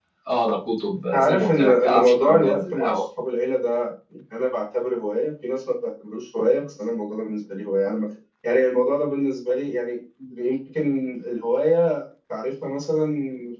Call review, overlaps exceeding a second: present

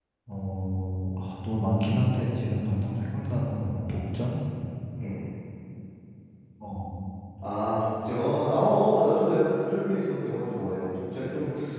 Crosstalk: none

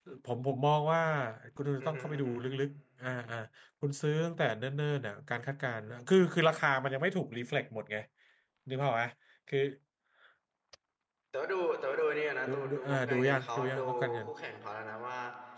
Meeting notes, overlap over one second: present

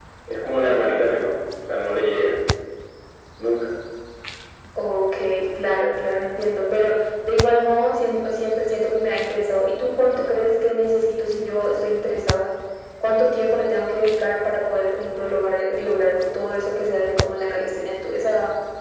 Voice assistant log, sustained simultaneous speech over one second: none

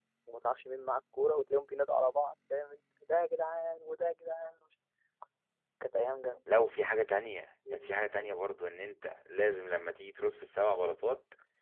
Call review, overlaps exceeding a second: none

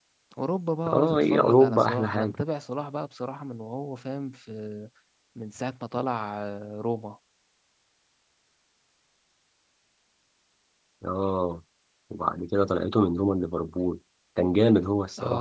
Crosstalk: present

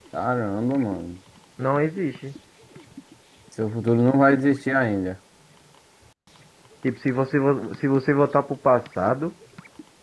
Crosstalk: none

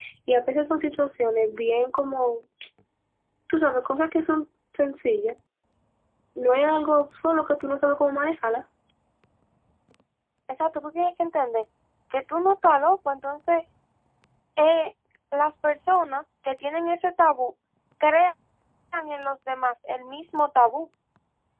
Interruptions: none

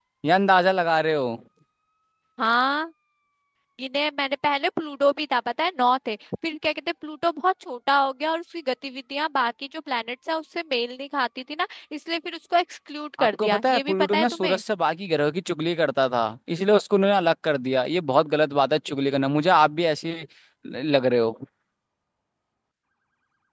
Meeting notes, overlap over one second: present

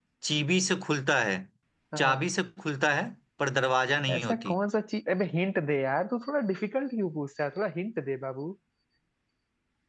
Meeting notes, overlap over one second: none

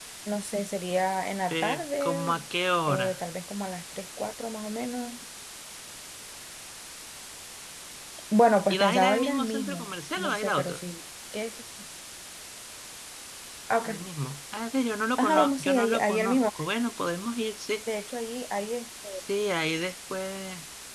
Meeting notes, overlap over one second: present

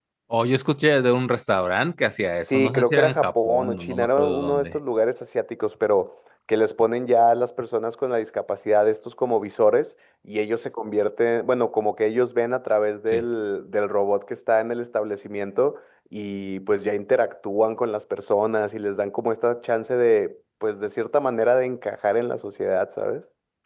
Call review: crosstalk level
present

